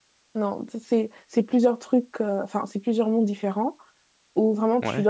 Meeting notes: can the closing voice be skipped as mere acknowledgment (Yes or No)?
Yes